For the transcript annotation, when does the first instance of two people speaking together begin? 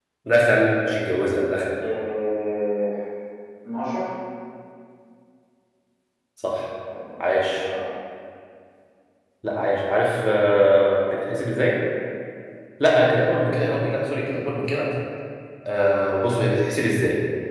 none

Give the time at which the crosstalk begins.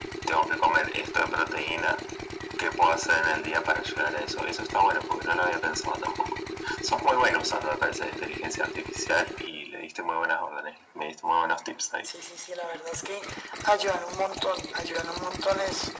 none

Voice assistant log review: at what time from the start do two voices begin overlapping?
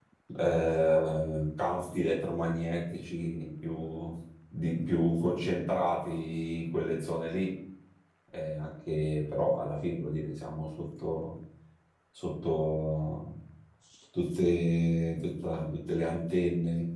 none

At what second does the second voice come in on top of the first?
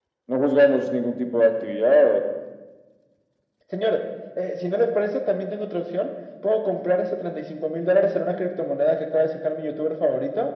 none

